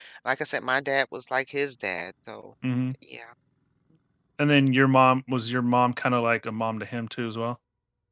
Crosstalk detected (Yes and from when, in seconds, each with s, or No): No